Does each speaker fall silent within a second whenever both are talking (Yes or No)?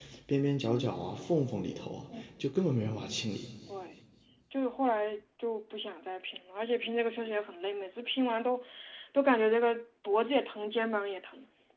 Yes